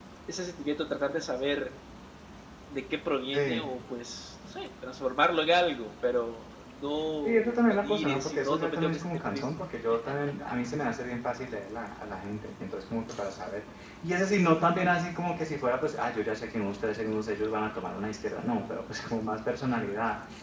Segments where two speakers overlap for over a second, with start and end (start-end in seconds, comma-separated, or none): 7.2-9.5